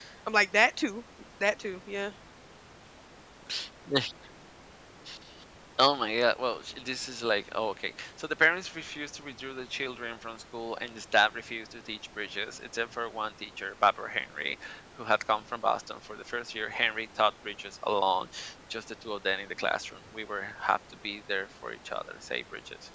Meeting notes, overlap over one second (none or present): none